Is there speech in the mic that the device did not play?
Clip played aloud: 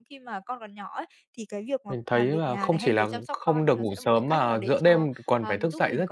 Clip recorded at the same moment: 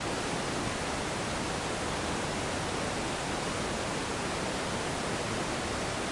No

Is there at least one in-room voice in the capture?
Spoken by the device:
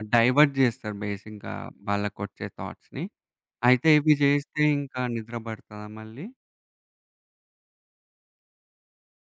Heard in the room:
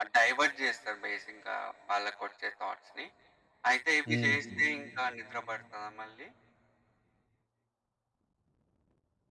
Yes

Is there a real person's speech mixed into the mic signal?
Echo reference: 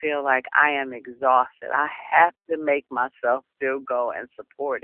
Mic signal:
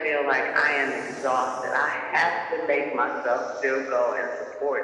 Yes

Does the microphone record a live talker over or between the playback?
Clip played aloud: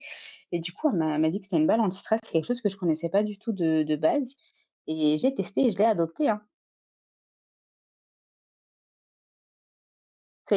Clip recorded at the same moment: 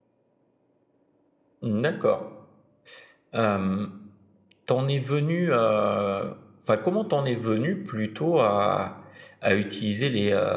Yes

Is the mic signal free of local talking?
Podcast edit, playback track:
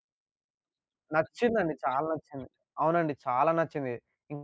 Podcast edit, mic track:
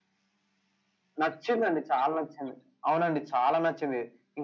Yes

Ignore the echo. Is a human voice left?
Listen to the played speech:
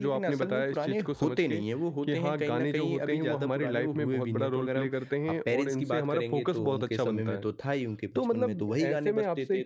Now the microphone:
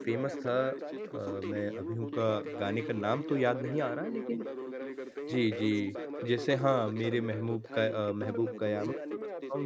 Yes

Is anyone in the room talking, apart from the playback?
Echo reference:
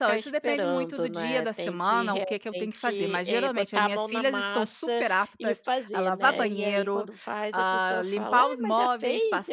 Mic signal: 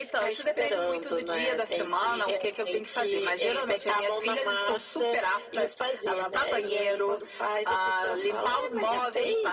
No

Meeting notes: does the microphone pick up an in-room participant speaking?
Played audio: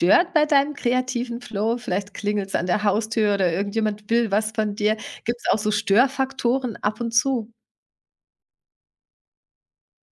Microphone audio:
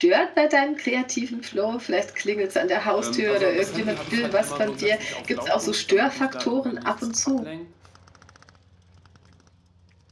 Yes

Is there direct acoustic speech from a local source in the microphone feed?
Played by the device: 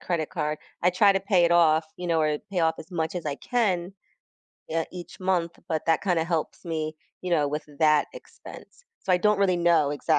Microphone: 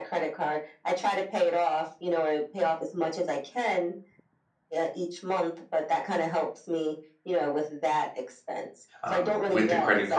Yes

